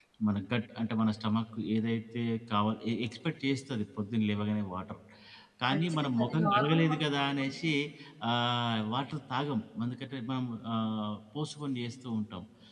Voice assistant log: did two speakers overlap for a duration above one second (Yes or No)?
Yes